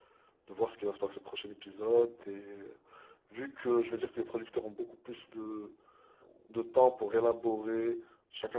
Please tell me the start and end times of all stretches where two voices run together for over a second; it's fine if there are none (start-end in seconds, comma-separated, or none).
none